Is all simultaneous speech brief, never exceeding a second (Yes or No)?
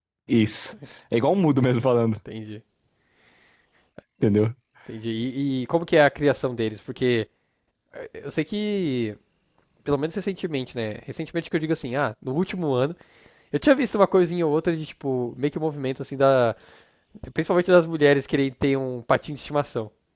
Yes